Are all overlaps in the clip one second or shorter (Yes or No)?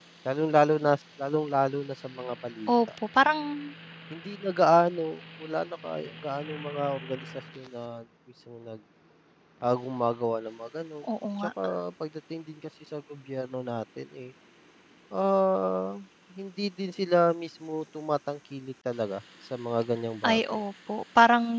Yes